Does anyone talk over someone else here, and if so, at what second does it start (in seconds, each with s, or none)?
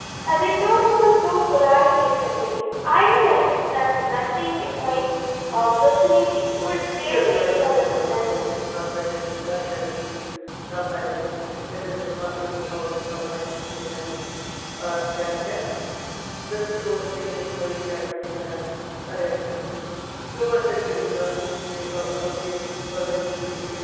7.0 s